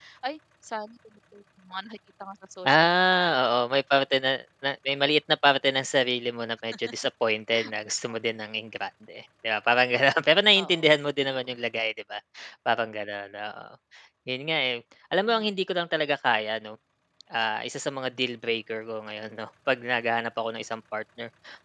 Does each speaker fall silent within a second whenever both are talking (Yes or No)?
Yes